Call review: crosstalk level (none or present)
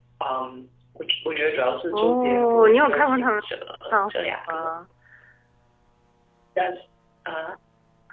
present